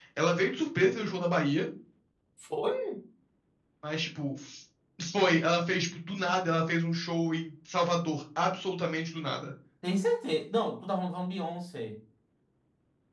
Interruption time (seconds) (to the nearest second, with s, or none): none